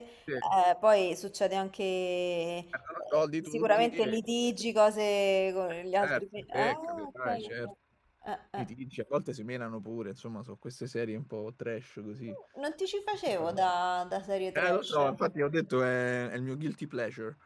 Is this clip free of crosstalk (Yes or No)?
No